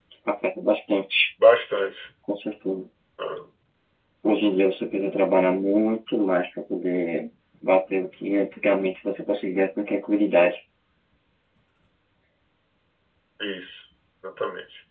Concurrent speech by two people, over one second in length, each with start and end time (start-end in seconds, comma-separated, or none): none